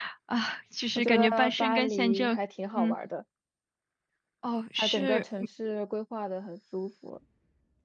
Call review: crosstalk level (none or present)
present